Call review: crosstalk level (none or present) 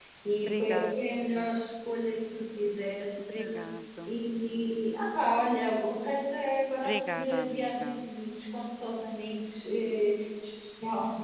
present